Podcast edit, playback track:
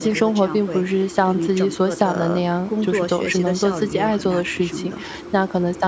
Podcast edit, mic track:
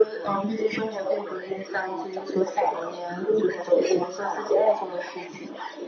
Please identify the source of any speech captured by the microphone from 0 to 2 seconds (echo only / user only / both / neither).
echo only